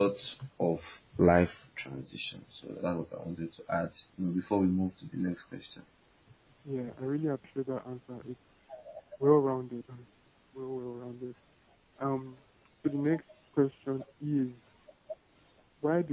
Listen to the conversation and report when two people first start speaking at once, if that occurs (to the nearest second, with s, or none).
none